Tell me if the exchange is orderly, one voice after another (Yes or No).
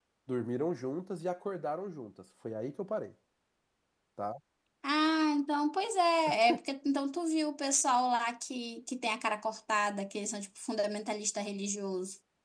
Yes